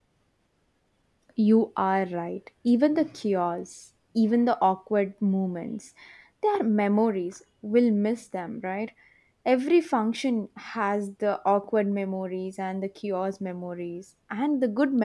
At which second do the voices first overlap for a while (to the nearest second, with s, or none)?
none